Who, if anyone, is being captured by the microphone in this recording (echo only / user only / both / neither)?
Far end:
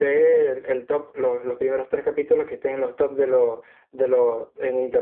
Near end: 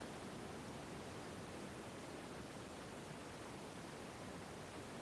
neither